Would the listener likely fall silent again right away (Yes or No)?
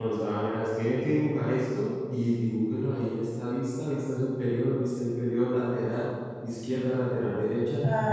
No